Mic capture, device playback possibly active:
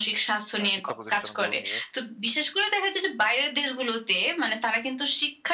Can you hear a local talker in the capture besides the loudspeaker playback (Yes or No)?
Yes